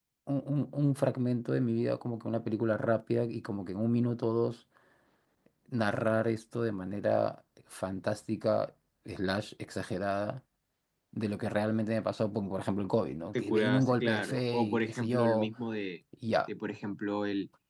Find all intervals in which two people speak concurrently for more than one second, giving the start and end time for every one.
13.3-15.5

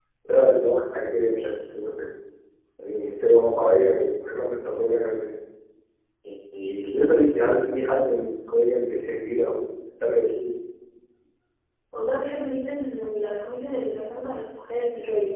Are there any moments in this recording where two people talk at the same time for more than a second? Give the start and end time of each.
none

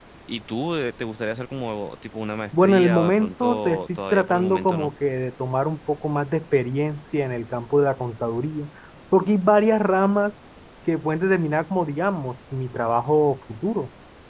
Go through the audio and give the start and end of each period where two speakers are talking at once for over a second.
2.6-4.9

